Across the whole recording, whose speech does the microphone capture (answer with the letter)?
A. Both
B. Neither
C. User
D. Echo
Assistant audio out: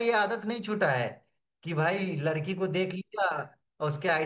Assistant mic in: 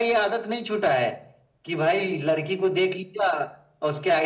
D